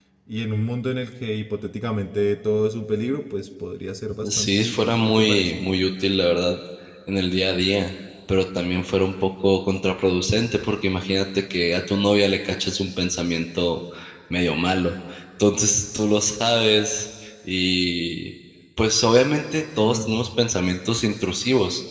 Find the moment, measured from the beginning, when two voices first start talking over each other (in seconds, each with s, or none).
4.4 s